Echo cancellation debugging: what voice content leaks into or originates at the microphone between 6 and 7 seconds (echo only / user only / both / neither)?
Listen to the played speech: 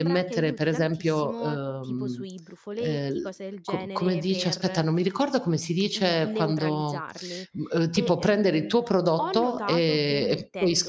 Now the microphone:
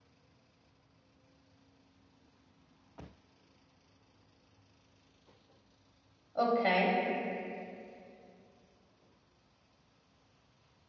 user only